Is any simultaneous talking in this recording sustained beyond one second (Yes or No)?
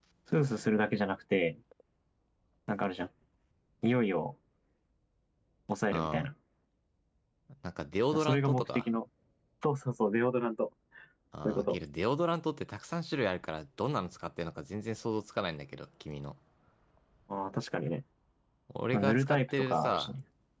Yes